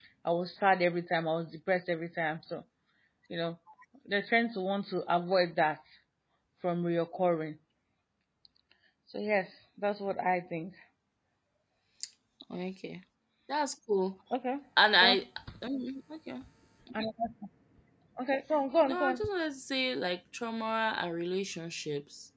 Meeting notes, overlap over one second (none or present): none